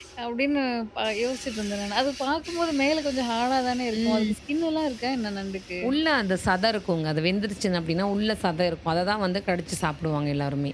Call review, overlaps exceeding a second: none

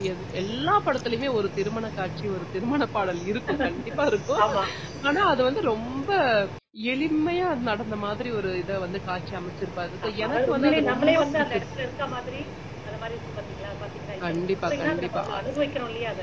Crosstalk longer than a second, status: present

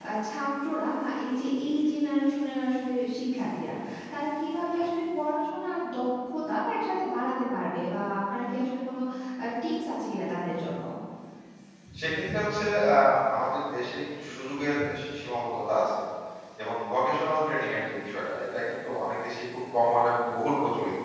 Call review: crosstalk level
none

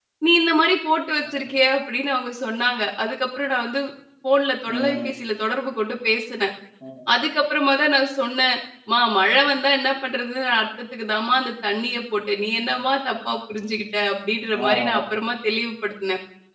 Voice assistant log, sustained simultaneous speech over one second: none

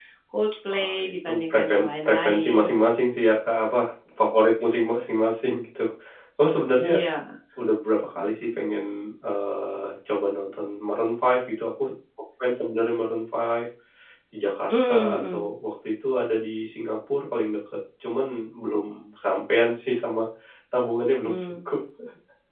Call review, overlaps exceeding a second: present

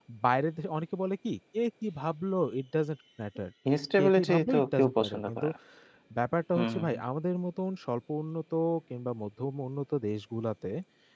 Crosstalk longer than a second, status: present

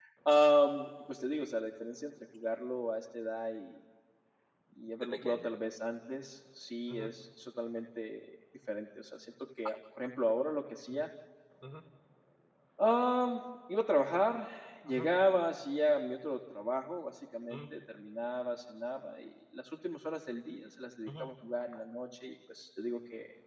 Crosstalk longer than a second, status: none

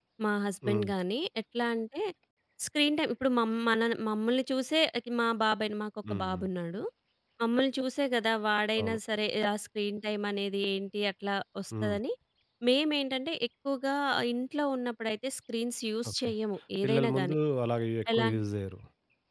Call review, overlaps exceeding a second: none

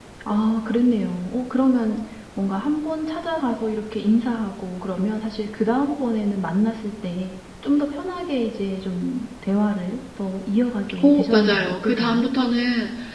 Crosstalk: present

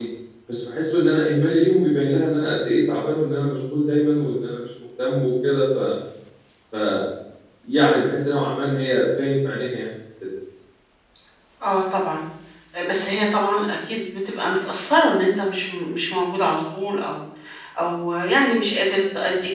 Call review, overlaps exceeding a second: none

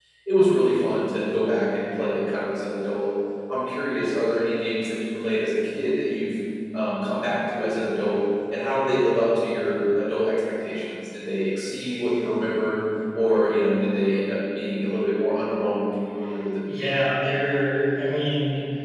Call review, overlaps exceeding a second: none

